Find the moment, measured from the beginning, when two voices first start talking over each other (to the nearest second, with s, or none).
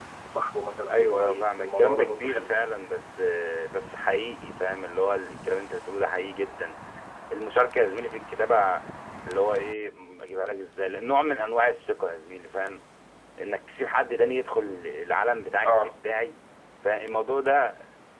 1 s